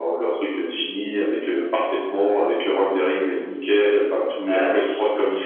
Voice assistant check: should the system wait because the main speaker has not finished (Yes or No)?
Yes